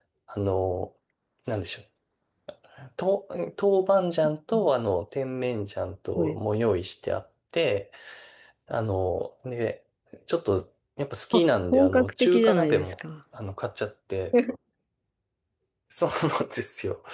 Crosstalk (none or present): present